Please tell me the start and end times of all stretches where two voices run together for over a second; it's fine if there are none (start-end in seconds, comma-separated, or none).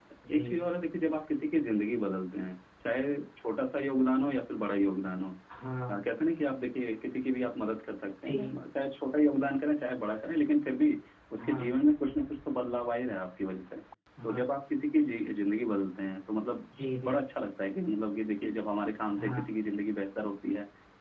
none